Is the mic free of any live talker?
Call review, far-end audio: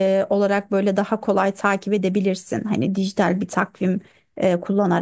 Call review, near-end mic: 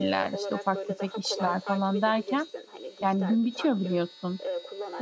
No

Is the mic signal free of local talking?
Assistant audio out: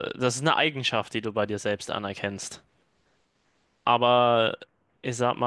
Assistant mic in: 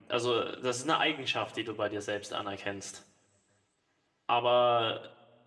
Yes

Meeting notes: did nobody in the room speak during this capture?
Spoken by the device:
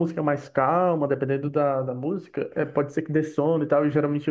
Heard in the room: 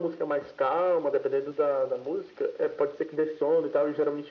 Yes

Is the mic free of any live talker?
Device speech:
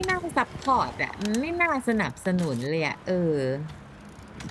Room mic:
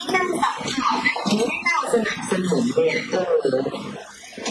Yes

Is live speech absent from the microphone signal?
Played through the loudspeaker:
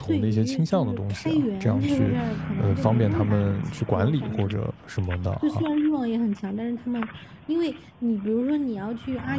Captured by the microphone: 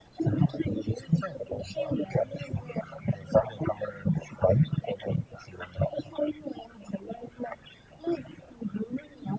Yes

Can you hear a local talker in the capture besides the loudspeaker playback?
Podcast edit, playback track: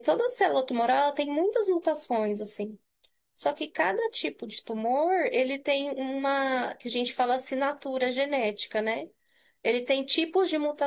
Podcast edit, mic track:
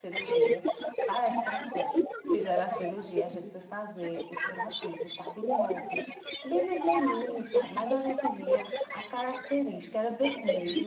Yes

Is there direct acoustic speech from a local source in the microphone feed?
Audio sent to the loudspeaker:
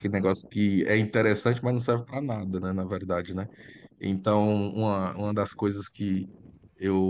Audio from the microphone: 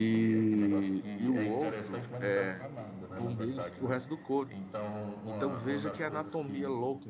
Yes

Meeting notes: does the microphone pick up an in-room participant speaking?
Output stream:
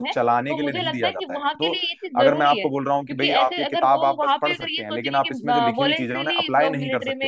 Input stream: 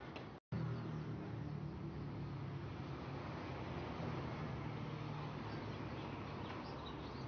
No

